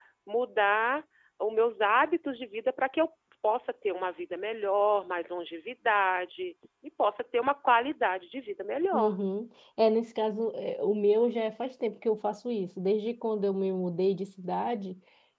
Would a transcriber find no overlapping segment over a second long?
Yes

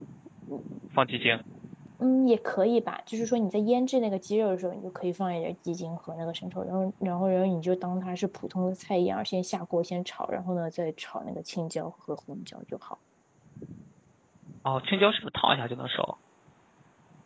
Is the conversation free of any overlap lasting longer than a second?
Yes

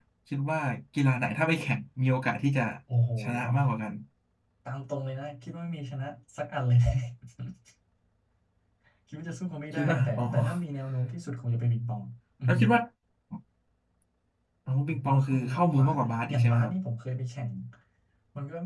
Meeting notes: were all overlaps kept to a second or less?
No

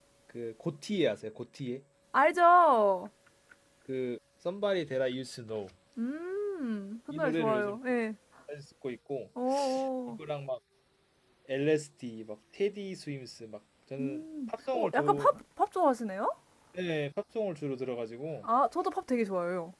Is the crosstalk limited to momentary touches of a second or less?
No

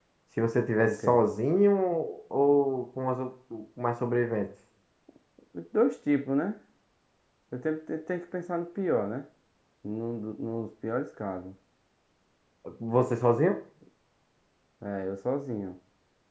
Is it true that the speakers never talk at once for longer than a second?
Yes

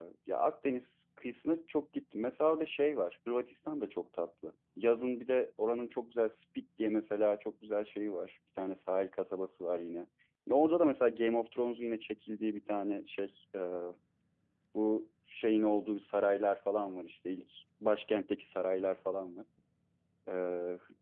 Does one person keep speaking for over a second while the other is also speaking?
No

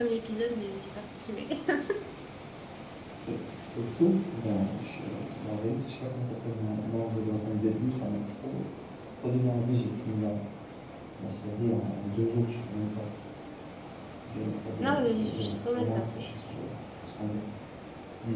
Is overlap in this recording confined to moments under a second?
No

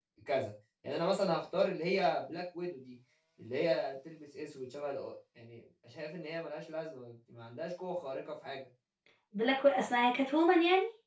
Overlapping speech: No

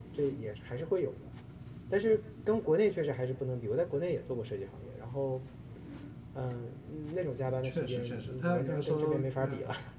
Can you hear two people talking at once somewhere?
Yes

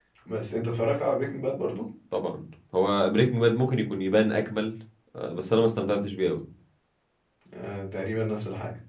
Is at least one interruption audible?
No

